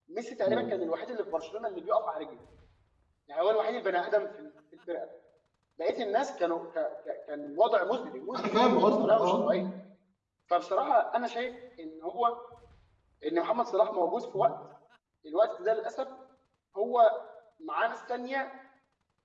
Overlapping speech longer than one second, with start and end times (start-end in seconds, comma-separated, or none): 8.3-9.6